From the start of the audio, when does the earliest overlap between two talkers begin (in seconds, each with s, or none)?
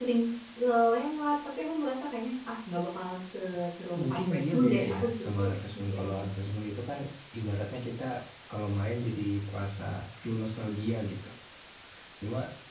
4.0 s